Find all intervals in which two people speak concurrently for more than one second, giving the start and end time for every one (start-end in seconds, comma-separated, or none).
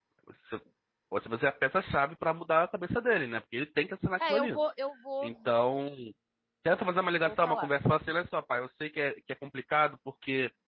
none